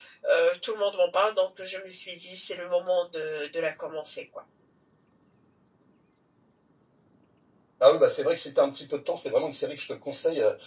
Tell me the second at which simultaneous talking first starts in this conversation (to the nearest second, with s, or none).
none